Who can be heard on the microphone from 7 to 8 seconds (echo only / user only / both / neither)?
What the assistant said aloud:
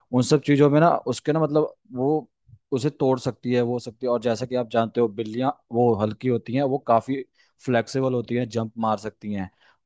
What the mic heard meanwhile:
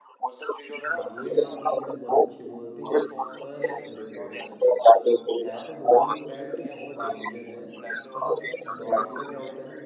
both